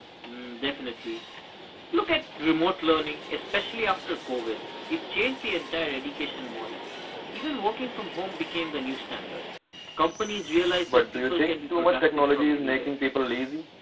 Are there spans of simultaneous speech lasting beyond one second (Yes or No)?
Yes